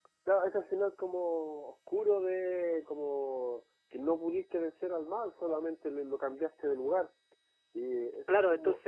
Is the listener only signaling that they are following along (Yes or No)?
No